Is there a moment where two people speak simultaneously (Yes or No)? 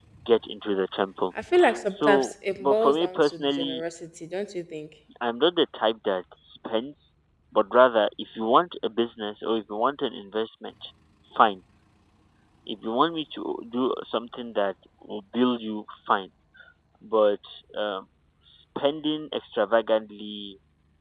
Yes